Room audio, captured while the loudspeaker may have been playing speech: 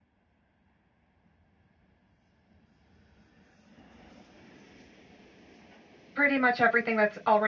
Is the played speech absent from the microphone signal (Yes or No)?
Yes